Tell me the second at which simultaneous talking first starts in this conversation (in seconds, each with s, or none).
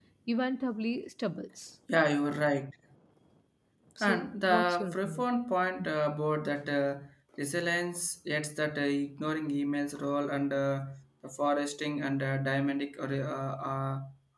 4.0 s